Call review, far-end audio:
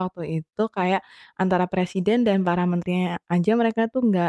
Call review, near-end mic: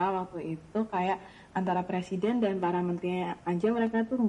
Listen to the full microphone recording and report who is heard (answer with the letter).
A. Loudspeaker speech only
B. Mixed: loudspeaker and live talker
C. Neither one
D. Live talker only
A